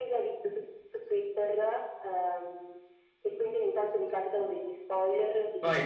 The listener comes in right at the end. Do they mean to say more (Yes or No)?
No